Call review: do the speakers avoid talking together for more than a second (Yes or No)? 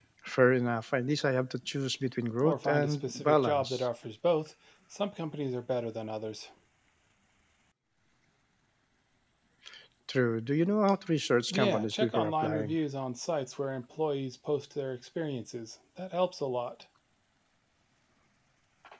No